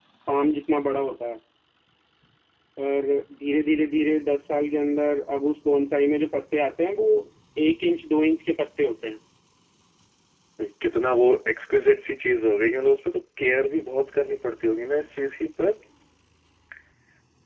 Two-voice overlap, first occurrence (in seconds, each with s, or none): none